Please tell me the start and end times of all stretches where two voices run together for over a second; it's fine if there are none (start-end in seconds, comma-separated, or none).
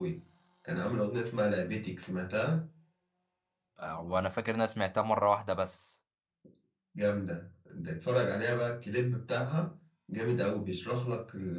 none